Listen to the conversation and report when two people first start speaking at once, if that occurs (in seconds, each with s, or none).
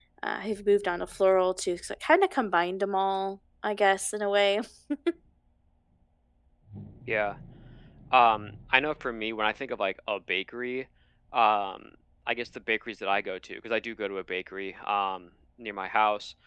none